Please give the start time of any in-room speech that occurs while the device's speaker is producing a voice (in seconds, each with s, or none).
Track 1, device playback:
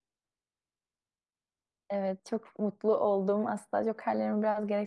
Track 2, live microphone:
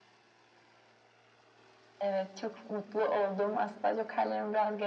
none